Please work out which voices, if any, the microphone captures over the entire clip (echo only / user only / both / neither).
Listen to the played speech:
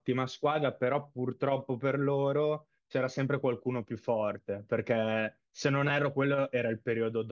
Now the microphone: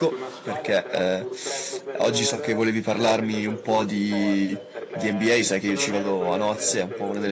both